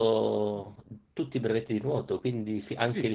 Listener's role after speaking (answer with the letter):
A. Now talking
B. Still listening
A